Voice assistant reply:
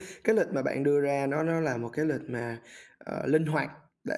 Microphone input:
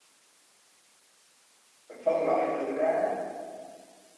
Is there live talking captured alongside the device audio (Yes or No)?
Yes